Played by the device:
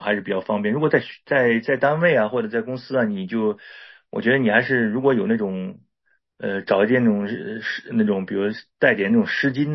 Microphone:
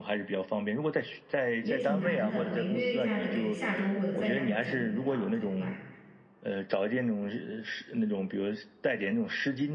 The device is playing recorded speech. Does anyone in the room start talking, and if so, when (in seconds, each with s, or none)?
1.6 s